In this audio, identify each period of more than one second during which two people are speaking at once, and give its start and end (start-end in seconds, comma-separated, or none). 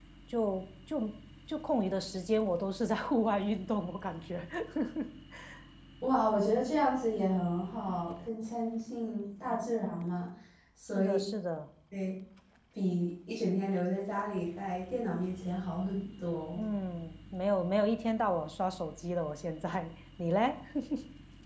none